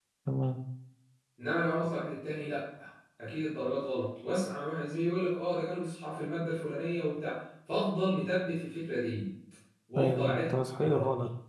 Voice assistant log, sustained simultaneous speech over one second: present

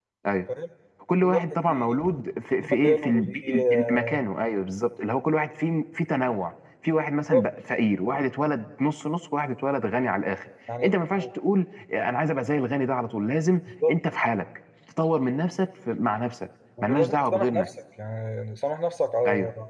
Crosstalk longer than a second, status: present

